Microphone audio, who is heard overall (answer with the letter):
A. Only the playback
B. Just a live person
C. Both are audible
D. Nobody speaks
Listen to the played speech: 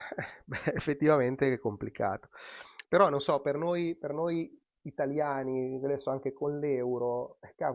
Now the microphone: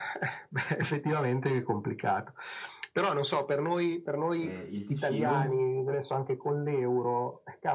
C